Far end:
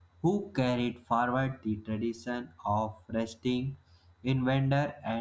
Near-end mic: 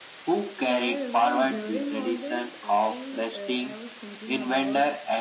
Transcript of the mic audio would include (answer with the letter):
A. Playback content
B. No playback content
A